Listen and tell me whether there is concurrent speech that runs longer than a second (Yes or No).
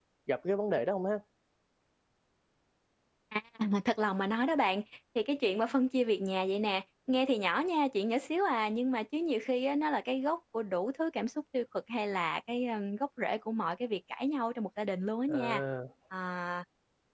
No